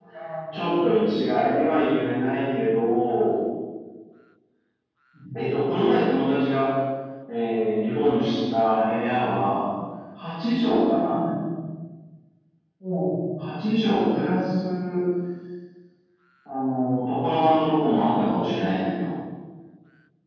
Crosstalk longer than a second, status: none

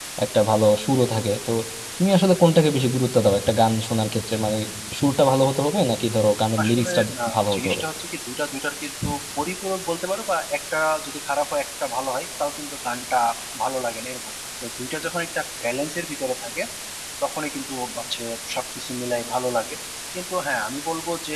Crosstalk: present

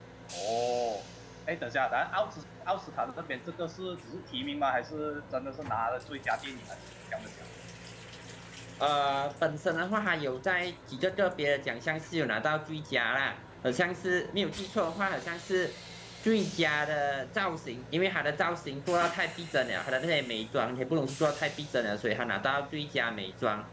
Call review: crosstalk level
none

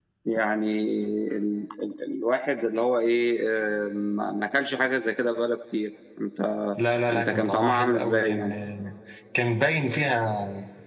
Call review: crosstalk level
present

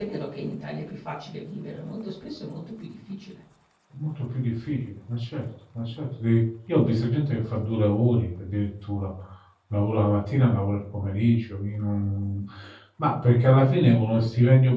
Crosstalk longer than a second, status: none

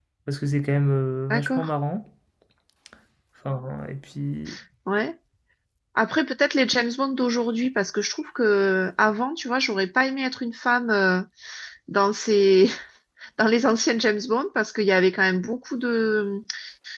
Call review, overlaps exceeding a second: none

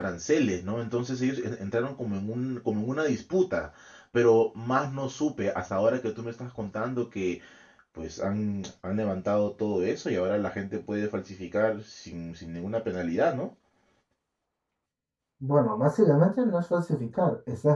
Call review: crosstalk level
none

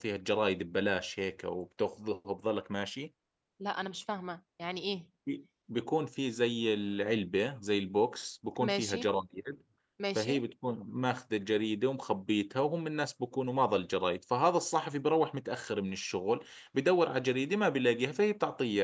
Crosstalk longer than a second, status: none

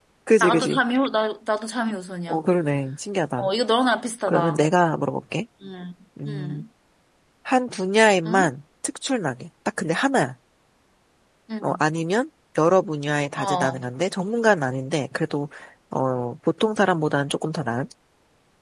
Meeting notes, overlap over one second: none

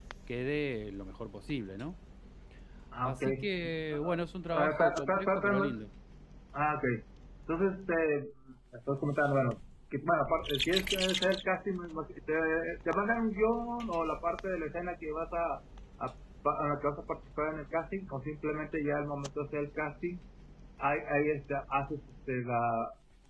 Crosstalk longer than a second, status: present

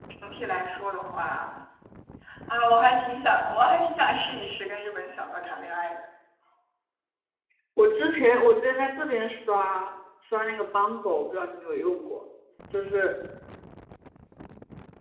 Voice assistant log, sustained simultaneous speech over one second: none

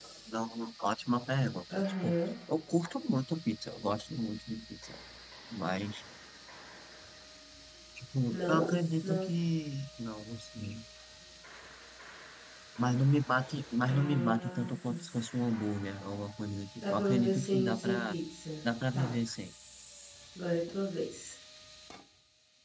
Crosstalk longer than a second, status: present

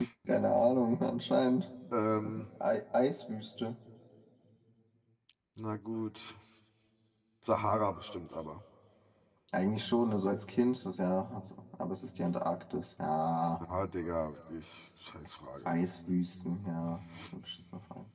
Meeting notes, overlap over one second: none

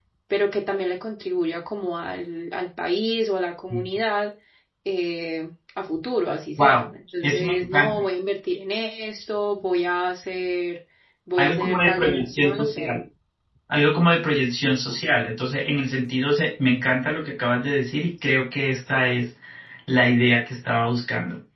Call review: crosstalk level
present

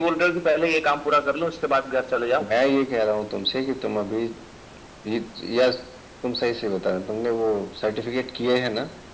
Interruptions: none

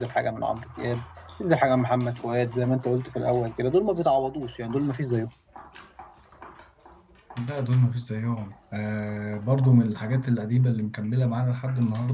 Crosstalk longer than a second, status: none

